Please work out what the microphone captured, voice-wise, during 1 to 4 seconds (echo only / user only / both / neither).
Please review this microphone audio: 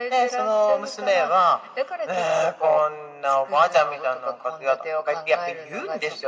echo only